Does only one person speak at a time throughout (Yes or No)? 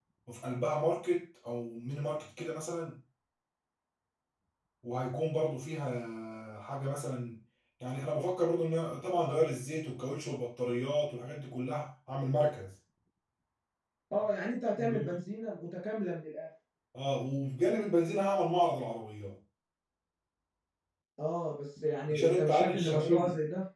No